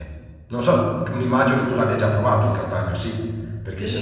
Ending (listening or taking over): taking over